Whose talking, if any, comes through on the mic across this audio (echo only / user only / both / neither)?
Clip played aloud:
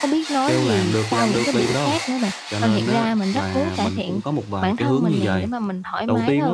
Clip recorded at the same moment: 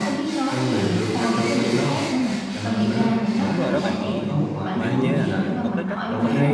both